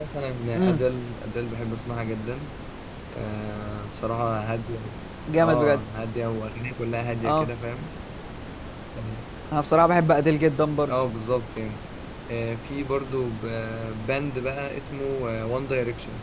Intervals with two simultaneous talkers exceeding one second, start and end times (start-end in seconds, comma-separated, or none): none